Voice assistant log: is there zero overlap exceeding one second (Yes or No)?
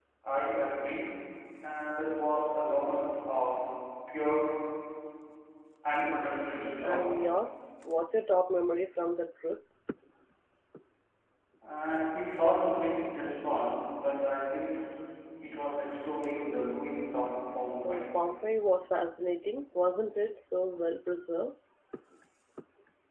Yes